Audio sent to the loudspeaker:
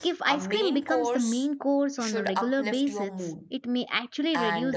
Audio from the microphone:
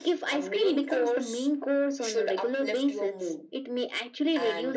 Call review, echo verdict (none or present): present